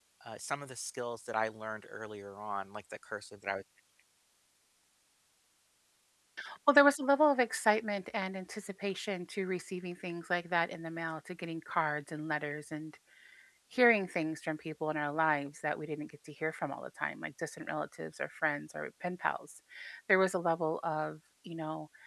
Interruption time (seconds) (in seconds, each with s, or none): none